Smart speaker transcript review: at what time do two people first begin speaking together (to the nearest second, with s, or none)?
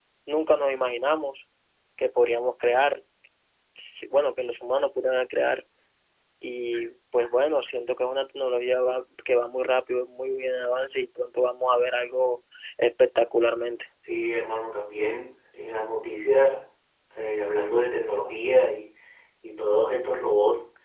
none